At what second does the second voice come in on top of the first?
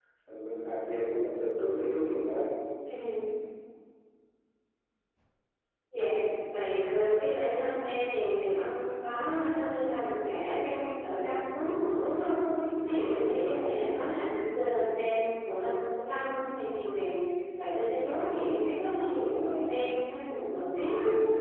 none

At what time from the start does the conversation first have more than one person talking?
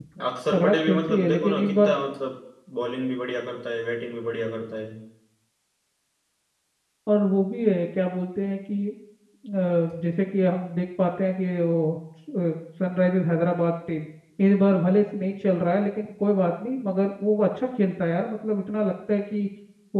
1 s

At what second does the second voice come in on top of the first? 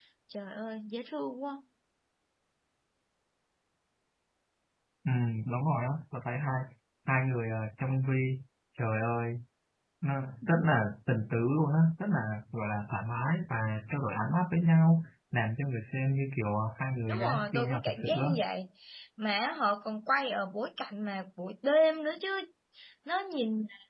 17 s

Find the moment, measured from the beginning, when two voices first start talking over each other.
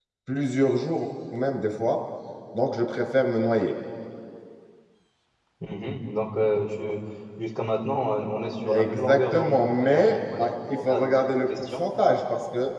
9 s

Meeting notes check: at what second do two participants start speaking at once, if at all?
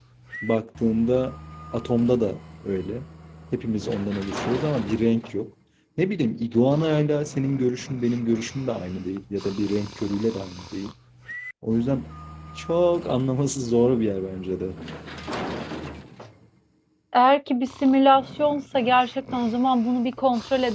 none

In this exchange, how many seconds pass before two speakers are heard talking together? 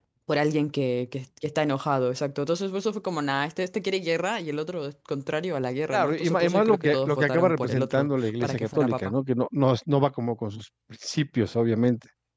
6 s

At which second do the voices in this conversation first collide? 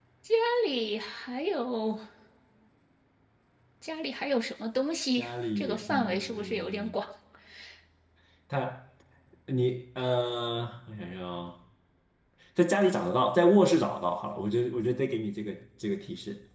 5 s

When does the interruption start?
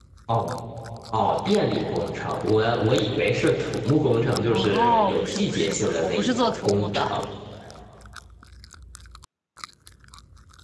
4 s

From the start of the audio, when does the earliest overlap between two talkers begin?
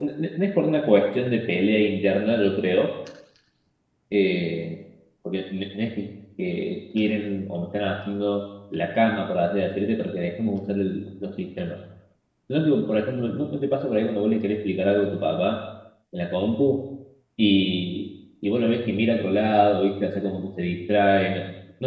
none

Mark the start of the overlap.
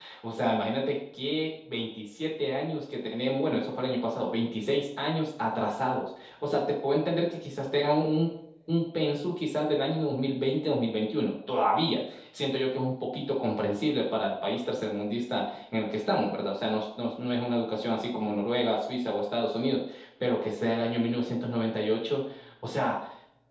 none

